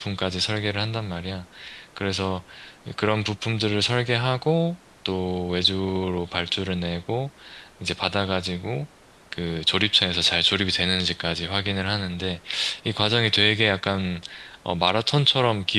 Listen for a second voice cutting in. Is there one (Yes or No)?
No